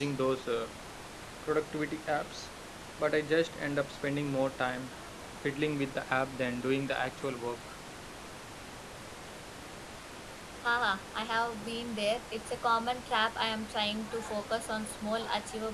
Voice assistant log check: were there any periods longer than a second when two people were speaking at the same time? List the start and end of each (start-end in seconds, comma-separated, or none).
none